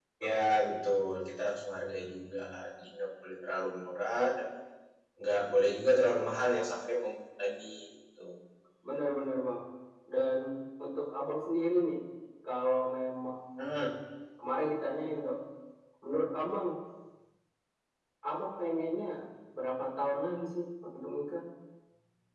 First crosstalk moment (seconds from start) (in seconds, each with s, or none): none